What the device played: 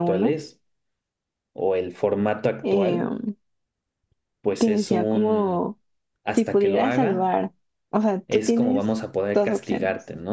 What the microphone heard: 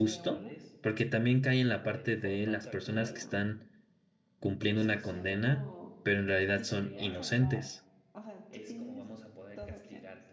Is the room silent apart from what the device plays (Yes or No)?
No